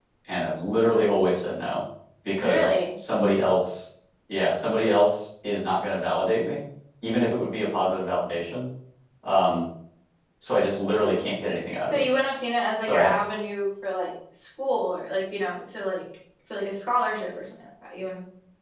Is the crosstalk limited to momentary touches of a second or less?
Yes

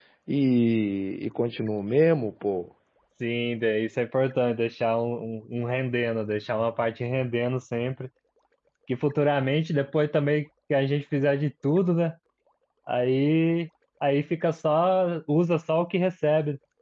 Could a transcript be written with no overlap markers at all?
Yes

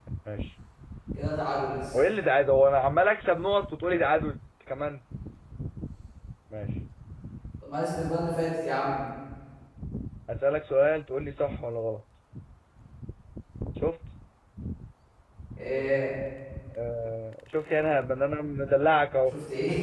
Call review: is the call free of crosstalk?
Yes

